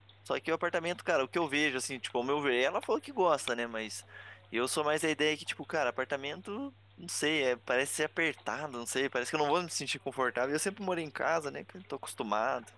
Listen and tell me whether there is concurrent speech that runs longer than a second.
No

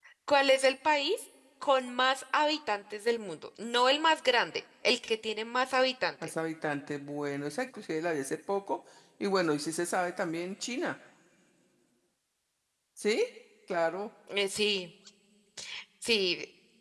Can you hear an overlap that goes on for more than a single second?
No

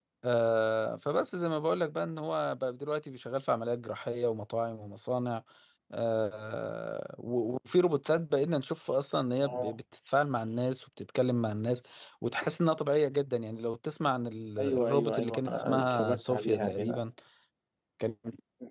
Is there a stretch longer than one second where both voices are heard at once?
Yes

